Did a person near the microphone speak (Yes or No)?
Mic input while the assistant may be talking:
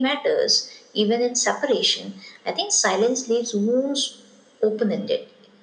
No